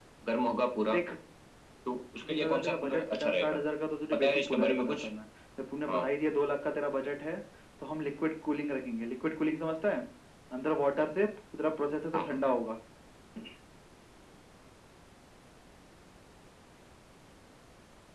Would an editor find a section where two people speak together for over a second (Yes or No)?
Yes